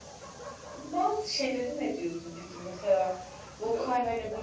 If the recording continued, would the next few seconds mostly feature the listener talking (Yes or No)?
No